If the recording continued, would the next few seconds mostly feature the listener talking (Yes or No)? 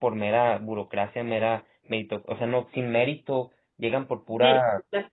No